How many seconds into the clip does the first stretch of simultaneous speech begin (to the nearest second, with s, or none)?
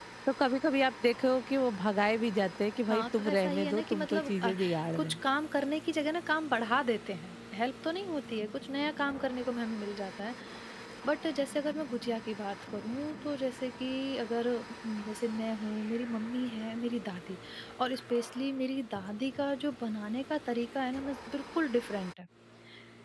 3 s